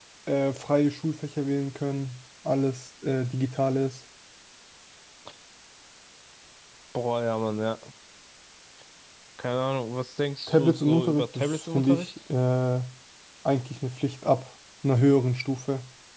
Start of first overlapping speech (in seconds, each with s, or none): 10.5 s